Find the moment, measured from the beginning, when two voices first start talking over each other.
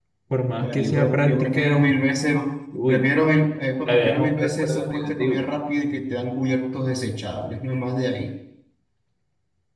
0.6 s

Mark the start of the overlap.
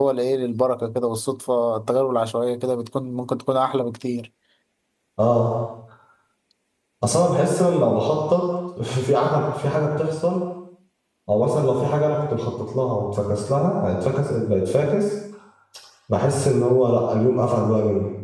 none

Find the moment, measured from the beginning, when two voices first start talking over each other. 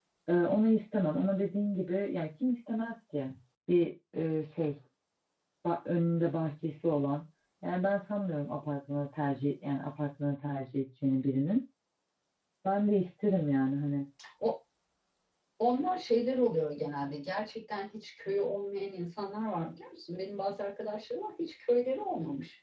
none

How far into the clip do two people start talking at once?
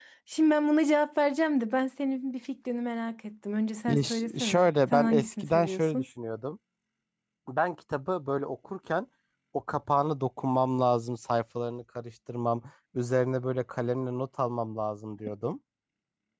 3.9 s

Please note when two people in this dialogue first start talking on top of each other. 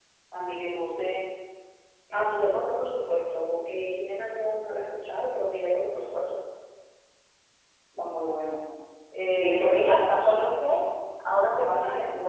9.2 s

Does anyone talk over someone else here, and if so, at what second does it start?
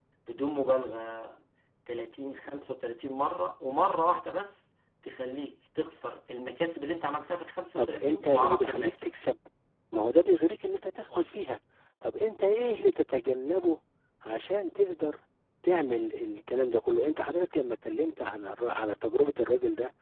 7.8 s

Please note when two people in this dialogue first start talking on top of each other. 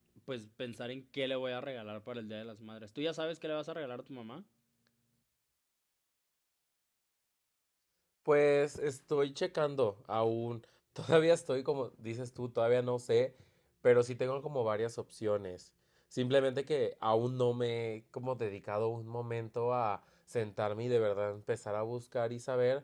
none

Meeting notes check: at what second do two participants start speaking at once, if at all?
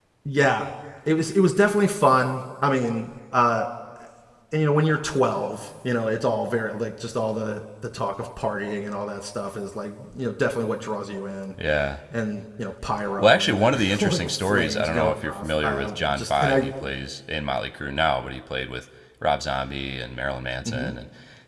13.2 s

